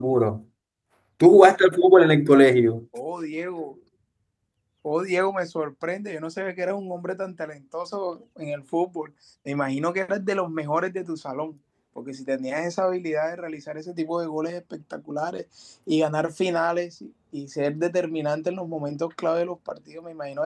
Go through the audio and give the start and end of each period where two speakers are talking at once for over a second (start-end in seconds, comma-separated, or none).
none